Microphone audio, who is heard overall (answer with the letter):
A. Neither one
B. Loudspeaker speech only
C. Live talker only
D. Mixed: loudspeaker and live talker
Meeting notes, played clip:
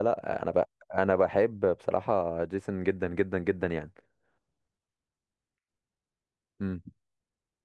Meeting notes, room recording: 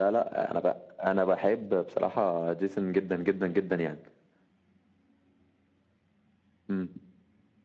B